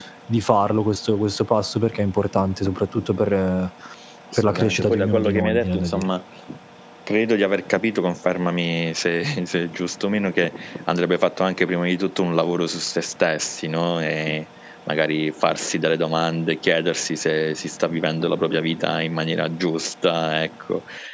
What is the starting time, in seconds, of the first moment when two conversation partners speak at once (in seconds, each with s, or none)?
4.4 s